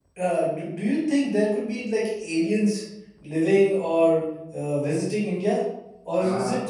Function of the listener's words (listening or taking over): listening